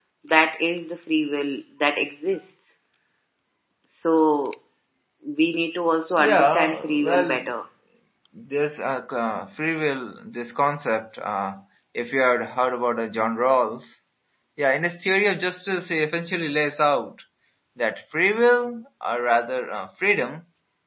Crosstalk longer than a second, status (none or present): present